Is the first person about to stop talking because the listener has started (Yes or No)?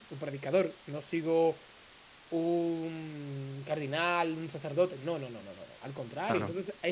No